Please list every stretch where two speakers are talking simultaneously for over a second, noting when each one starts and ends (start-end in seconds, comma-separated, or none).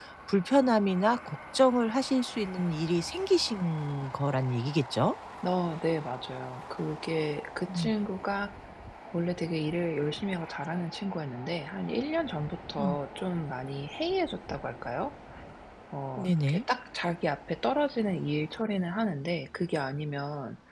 none